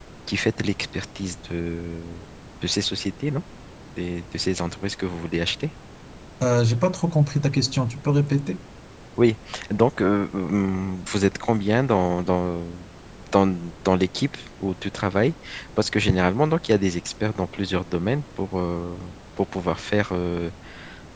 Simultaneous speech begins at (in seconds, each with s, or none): none